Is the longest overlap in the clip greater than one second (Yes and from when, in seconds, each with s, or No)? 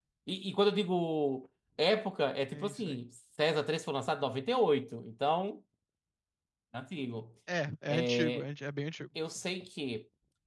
No